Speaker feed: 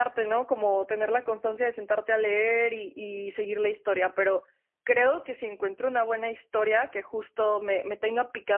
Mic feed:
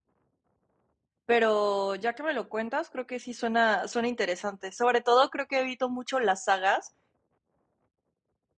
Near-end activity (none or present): present